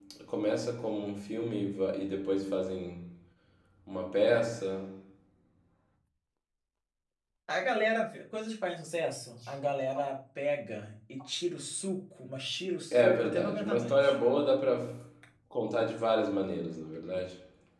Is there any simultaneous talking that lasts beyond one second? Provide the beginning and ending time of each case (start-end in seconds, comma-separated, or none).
12.9-14.2